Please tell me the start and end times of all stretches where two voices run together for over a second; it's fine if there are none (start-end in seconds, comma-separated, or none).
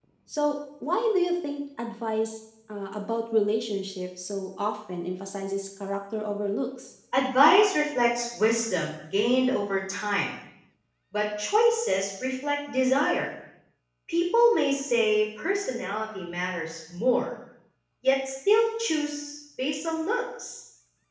none